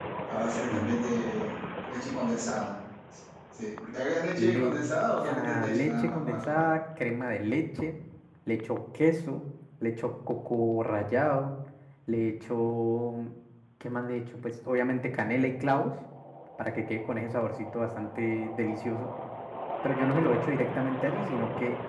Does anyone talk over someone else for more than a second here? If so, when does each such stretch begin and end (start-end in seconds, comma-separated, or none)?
5.2-6.6